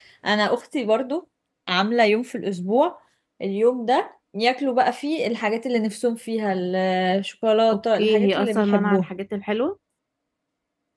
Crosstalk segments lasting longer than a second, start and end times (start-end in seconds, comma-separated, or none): 7.7-9.1